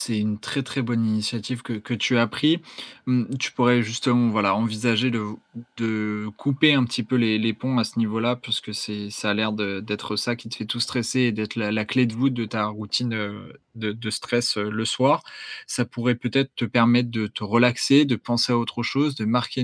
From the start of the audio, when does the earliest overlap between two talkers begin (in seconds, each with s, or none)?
none